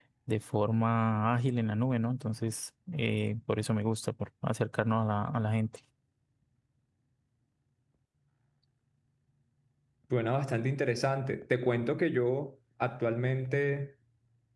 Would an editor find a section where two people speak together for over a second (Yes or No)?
No